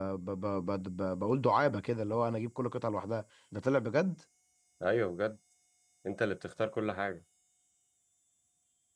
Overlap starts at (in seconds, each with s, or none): none